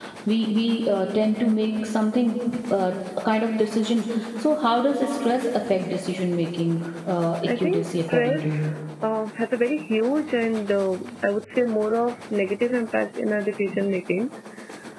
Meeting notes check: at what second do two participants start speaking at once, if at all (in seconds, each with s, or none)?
7.5 s